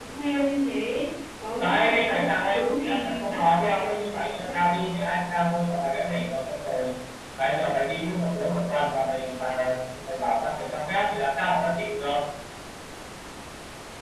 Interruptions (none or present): present